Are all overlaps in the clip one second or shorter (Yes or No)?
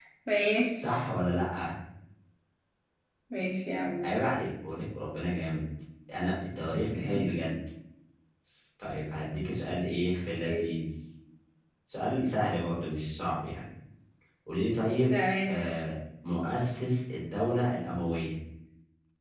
Yes